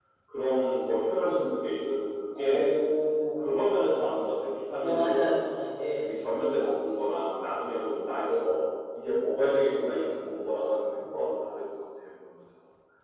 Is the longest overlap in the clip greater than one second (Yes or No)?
No